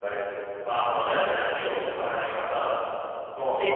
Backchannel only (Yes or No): No